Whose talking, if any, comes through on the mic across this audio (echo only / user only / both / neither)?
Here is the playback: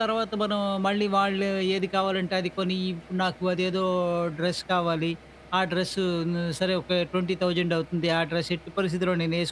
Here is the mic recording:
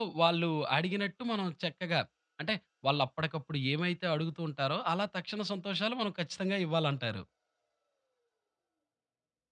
user only